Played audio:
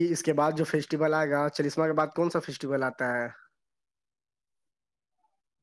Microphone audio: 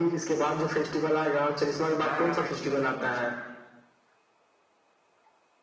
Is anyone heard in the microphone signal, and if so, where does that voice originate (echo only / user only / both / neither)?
both